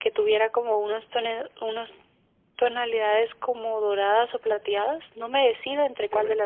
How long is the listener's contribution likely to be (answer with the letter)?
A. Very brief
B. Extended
B